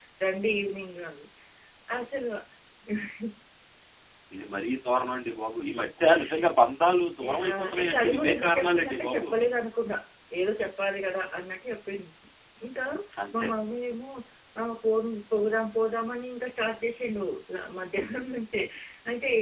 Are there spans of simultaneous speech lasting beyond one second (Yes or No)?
Yes